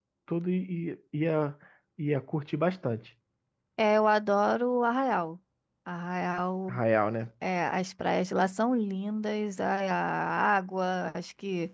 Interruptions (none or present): none